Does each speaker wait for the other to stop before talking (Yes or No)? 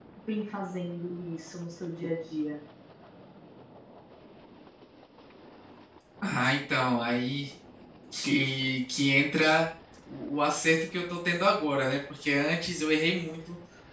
Yes